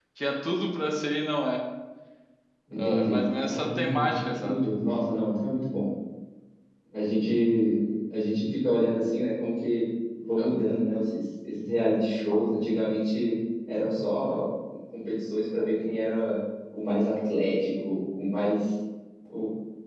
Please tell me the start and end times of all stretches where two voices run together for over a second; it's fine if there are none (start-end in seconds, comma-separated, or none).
2.8-4.7